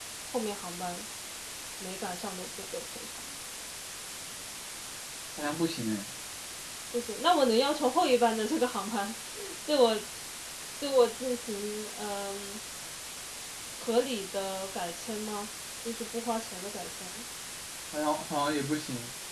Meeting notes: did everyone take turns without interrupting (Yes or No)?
Yes